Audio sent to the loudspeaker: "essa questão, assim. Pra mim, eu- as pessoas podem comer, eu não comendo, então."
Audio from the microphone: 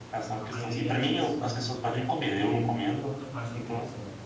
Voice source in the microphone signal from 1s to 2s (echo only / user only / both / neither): both